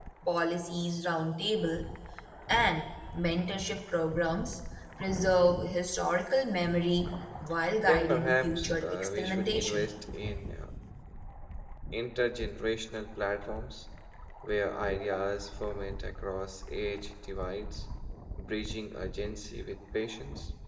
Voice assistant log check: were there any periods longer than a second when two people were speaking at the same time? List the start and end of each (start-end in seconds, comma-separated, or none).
7.8-9.9